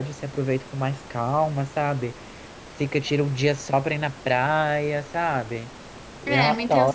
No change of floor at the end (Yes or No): No